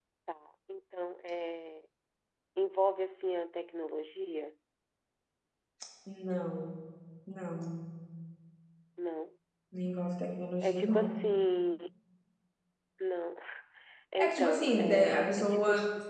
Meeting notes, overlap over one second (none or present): present